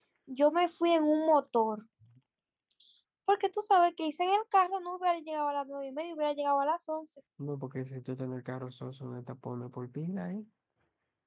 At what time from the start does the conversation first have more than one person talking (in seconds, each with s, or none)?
none